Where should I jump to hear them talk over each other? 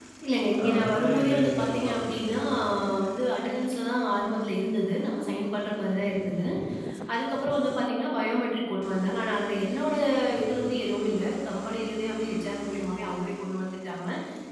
0.6 s

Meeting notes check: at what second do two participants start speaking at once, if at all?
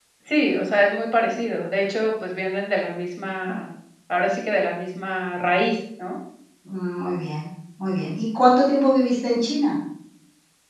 none

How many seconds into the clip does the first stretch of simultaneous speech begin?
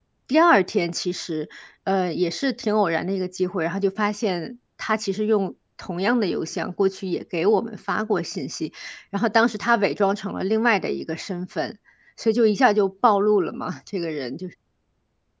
none

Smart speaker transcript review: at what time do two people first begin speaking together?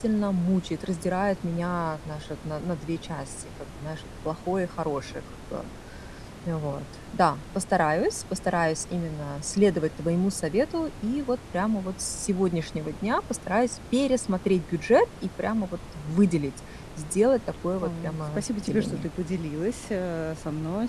17.8 s

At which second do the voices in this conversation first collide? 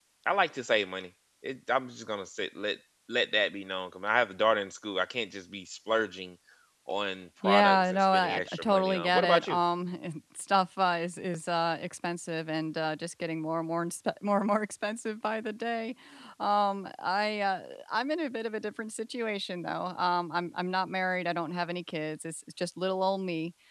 7.4 s

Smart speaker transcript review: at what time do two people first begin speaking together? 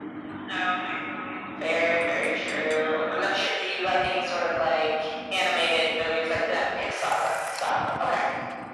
1.6 s

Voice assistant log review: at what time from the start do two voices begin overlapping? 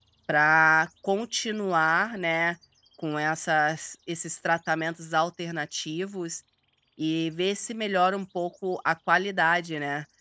none

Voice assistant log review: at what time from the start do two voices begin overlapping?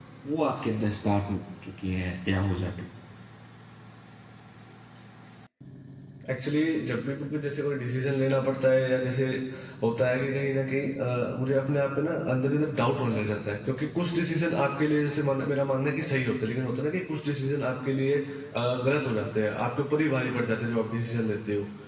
none

